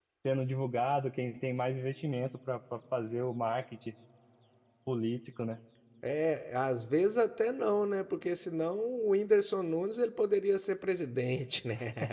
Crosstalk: none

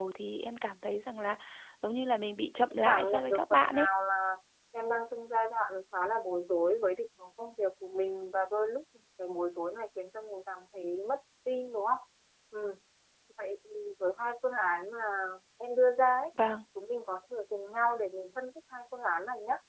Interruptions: present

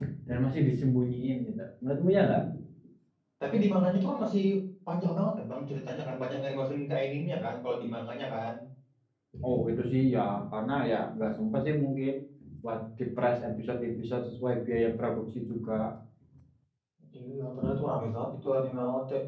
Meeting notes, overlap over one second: none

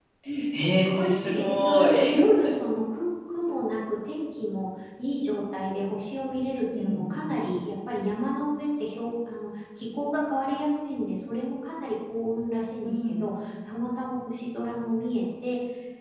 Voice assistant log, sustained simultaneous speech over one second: present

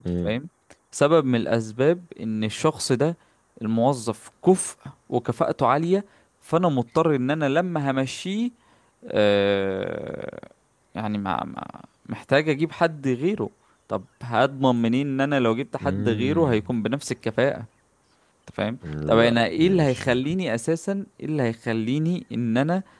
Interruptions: present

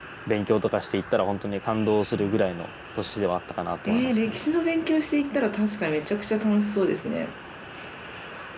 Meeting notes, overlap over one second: none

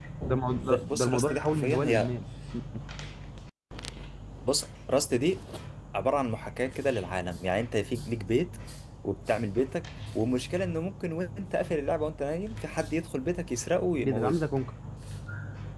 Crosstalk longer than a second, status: present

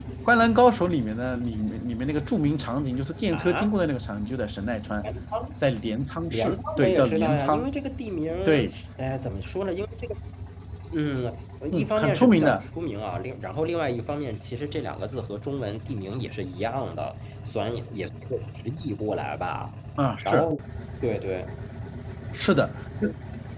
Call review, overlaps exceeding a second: present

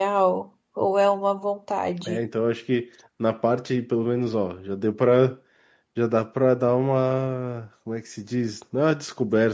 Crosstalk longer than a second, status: none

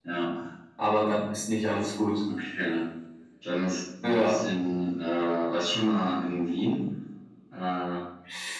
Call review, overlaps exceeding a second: none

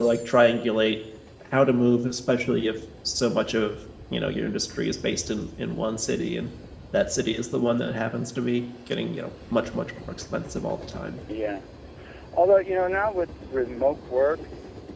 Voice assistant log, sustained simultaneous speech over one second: none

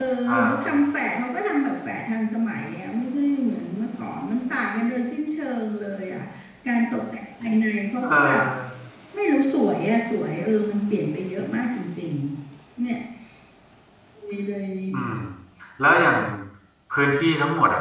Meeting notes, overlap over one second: none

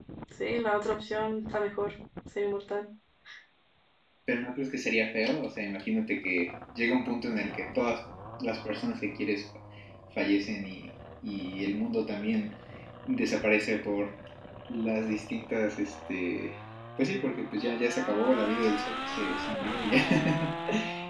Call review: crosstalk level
none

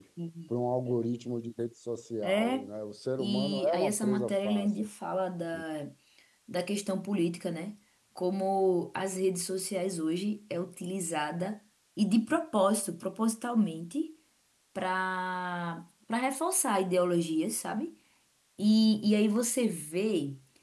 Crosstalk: present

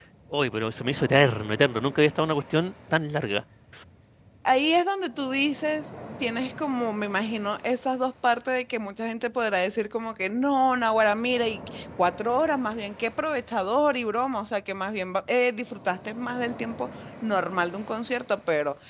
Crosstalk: none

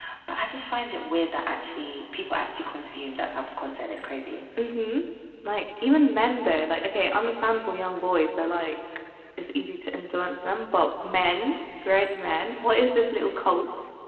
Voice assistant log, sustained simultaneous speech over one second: none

